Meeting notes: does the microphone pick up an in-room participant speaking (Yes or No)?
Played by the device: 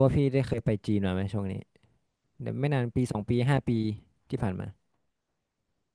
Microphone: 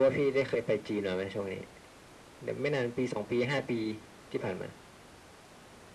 No